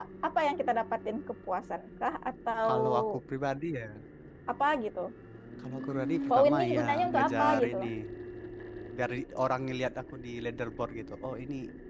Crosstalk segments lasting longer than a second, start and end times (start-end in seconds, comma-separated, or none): 6.3-7.8